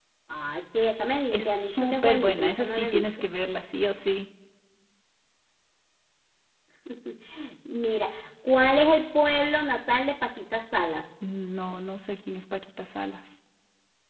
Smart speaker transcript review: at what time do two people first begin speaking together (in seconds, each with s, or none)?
1.3 s